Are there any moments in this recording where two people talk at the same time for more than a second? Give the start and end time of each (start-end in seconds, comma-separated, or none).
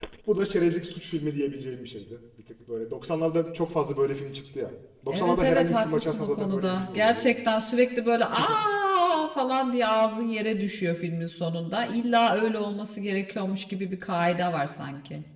5.1-7.3